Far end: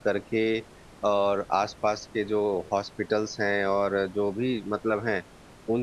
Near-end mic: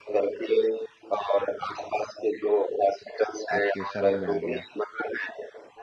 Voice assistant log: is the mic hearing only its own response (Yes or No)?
No